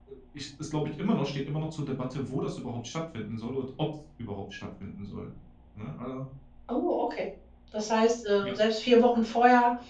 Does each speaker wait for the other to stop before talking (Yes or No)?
Yes